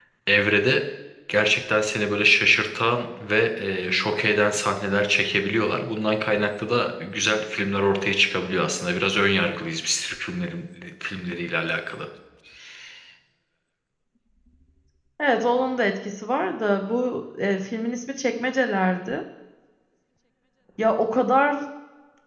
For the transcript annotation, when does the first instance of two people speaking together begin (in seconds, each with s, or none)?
none